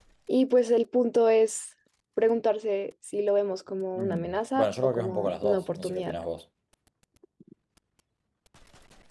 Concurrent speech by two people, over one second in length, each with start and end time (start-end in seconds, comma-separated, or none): 4.0-6.2